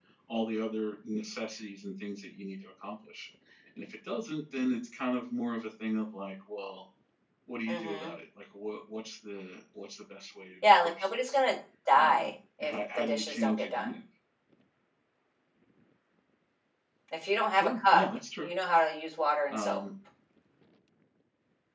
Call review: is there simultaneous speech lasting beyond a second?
Yes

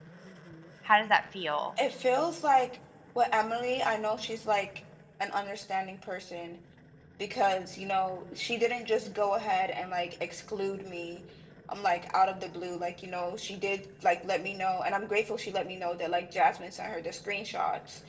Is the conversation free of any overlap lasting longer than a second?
Yes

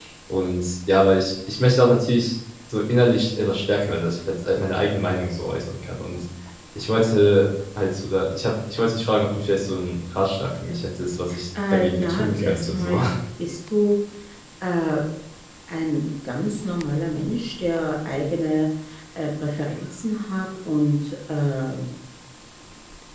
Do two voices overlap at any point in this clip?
Yes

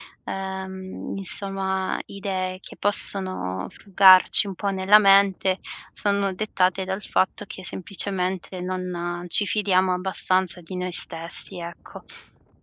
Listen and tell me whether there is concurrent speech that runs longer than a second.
No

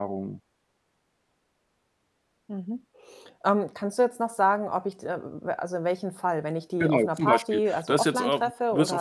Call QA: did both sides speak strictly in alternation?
No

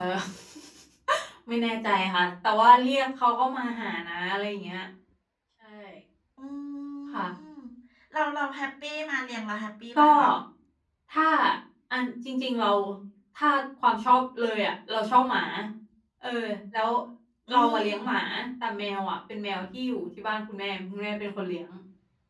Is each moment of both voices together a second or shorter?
Yes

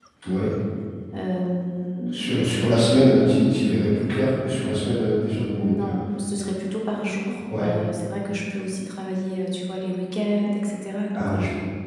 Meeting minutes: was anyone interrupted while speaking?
Yes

